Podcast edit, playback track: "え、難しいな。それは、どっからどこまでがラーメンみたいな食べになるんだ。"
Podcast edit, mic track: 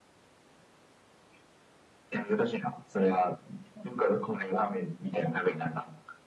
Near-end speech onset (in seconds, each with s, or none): none